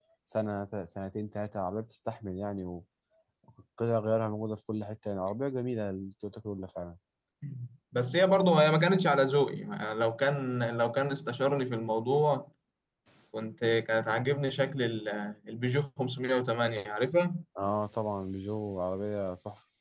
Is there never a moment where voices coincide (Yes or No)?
Yes